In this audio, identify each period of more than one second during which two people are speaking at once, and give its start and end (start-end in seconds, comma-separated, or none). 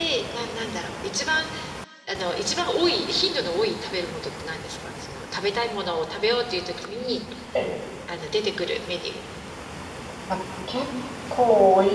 none